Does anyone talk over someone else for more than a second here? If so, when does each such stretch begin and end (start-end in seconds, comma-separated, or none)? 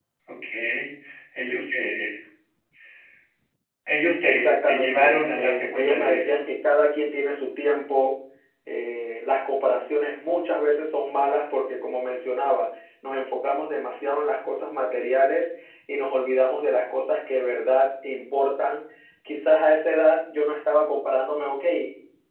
4.2-6.4